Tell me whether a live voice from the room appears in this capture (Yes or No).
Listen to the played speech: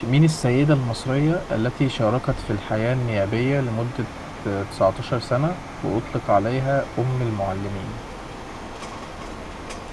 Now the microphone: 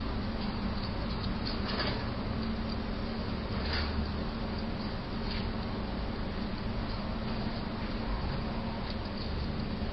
No